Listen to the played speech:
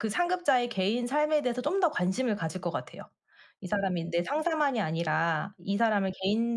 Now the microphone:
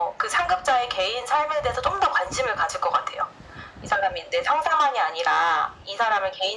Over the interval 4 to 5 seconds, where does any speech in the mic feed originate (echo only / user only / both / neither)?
echo only